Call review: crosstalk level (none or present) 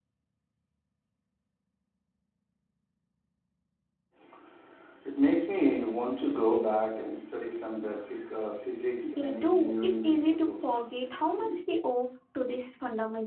present